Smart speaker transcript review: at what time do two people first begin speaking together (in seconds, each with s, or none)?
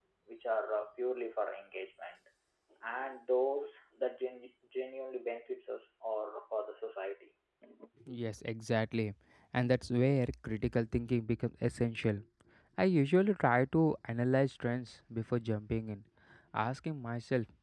none